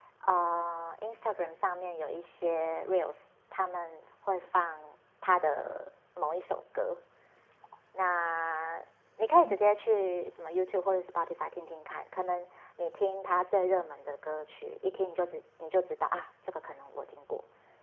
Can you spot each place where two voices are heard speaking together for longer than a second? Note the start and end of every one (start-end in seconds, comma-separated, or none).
none